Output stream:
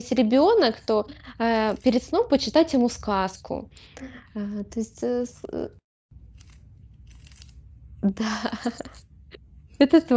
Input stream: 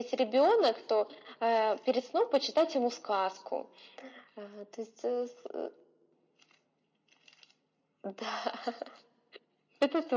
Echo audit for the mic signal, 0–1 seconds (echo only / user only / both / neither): echo only